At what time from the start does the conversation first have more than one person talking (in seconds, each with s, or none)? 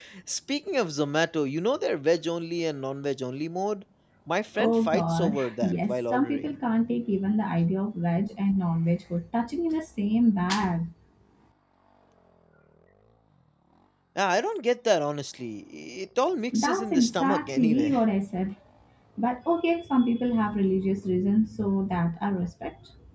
4.6 s